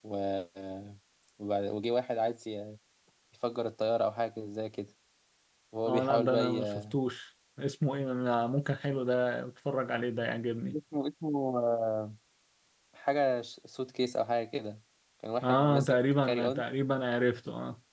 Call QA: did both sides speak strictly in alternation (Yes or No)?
No